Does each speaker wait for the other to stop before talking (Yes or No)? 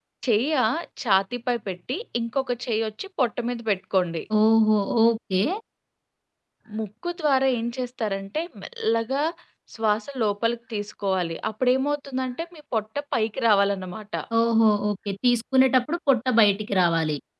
Yes